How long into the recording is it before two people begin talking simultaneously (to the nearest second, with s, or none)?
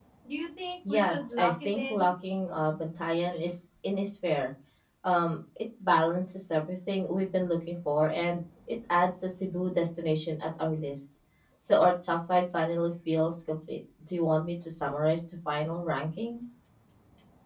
1 s